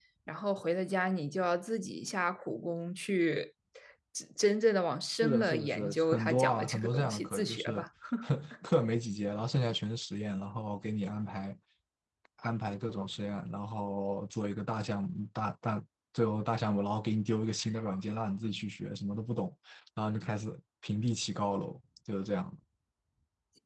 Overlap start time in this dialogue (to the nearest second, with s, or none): 5 s